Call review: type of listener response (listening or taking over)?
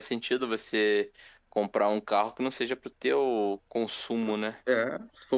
taking over